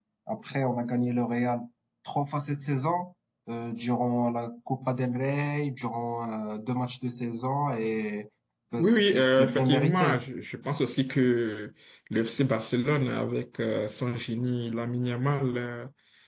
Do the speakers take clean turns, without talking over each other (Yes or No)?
No